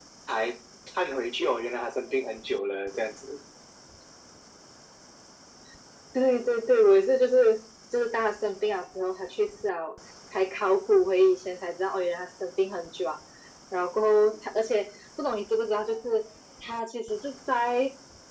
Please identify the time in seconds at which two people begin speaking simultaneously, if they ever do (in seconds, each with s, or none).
none